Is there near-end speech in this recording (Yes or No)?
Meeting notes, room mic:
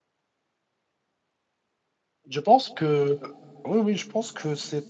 Yes